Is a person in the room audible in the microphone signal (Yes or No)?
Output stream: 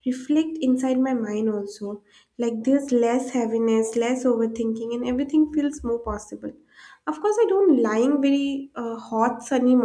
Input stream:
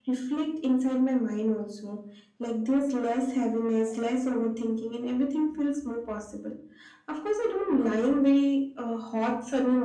No